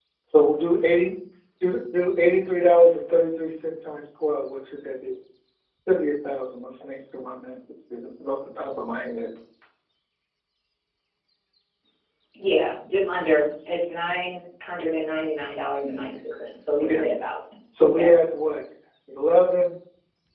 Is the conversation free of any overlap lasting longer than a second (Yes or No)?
Yes